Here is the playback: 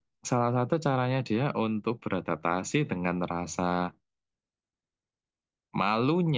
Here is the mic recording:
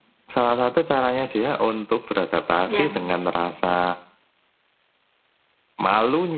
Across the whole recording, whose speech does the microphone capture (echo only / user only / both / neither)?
both